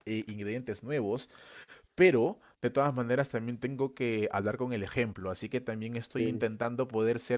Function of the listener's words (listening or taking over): listening